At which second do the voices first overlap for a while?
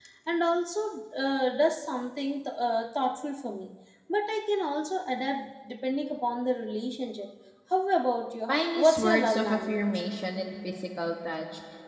8.5 s

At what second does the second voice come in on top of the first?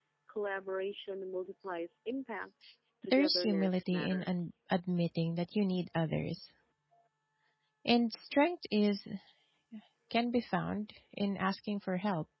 3.1 s

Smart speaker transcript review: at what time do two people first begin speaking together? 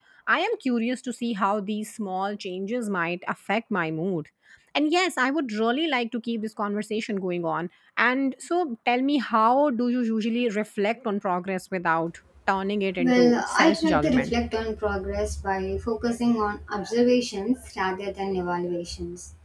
13.0 s

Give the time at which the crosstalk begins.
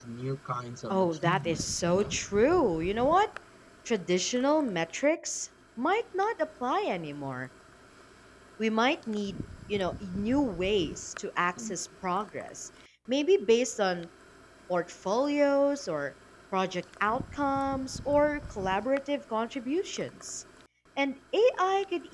0.9 s

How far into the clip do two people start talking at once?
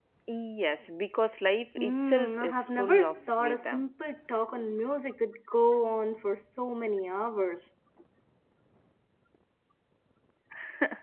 1.8 s

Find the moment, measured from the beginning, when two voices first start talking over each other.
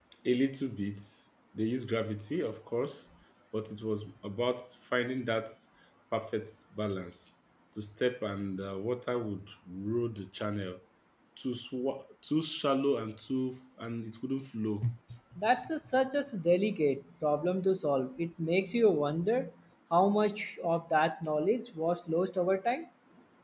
none

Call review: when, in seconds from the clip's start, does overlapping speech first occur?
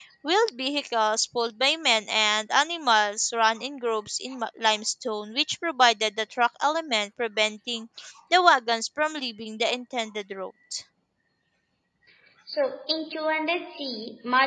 none

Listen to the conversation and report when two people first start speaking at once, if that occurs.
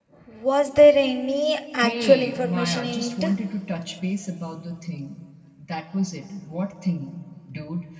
1.8 s

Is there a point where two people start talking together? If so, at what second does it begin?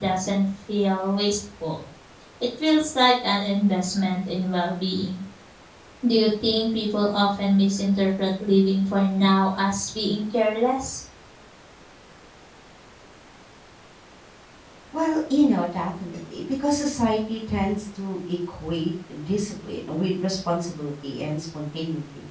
none

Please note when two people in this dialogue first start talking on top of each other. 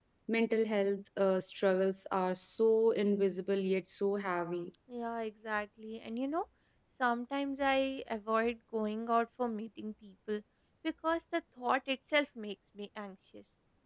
none

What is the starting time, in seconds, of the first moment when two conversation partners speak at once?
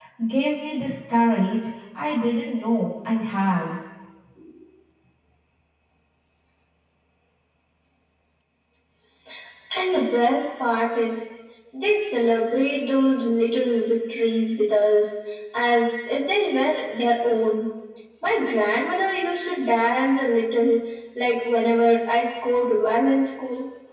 none

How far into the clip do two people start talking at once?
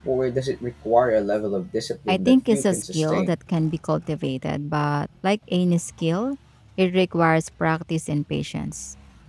2.1 s

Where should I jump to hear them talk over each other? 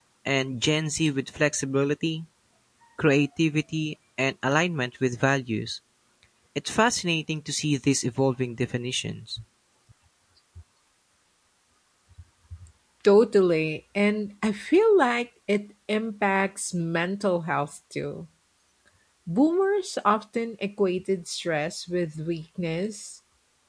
none

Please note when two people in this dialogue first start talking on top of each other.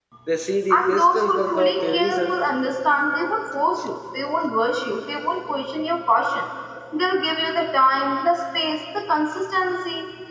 0.7 s

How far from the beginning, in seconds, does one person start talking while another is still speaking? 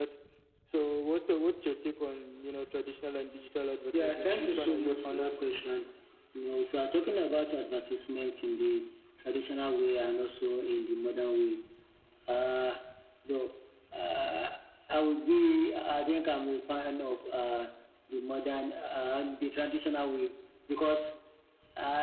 3.9 s

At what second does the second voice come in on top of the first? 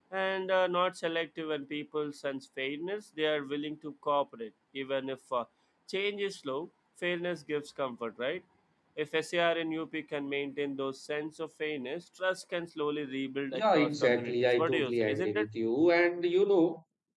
13.5 s

